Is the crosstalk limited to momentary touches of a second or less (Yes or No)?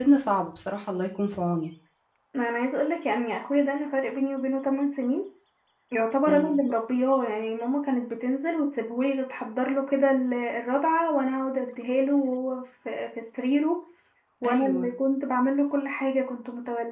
Yes